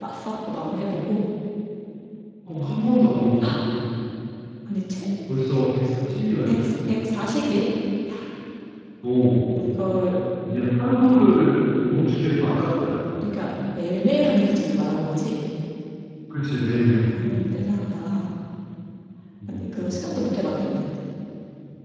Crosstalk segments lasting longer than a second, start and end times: none

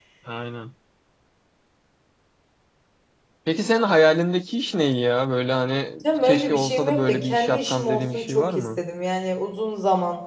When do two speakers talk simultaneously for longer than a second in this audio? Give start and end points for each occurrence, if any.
6.2-8.8

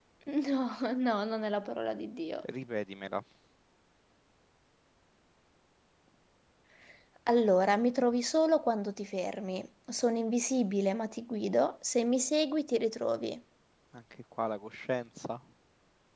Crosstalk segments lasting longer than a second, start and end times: none

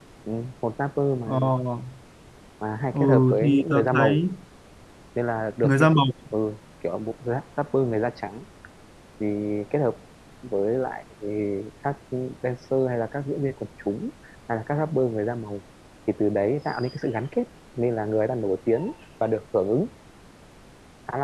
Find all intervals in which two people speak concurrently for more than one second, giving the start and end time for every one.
2.9-4.2

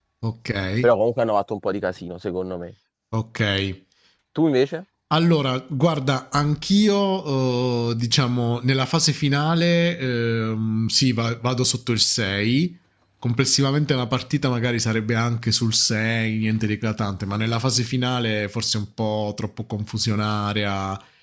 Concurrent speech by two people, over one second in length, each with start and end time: none

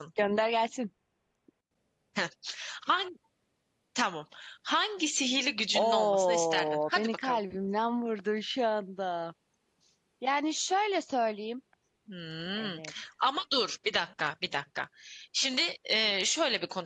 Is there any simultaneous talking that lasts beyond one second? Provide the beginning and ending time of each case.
5.8-7.4

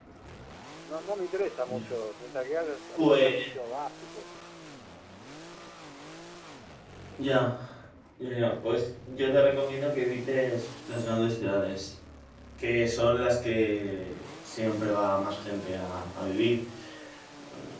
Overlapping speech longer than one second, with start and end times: none

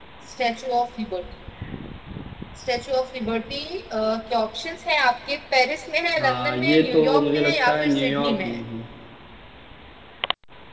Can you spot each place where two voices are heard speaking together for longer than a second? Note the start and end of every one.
6.2-8.6

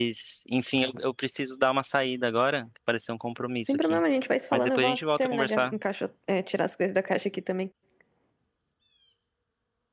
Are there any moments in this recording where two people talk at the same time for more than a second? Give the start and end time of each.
4.5-5.7

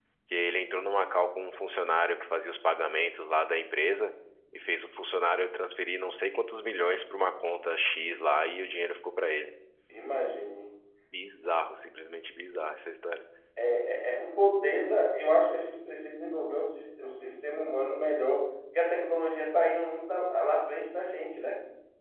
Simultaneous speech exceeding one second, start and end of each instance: none

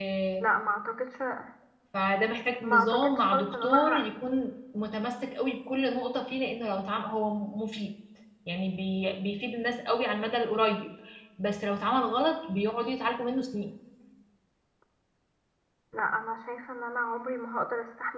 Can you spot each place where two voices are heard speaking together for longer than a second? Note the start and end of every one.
2.6-4.1

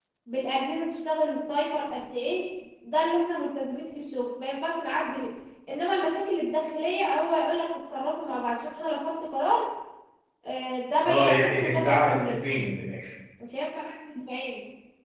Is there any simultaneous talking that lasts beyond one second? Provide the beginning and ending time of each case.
11.0-12.5

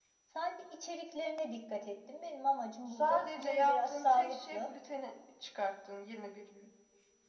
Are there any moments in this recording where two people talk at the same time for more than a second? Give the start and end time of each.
2.9-4.7

